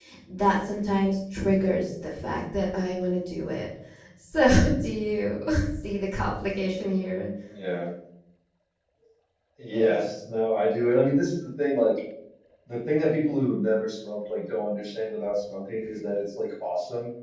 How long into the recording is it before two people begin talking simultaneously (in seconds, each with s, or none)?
none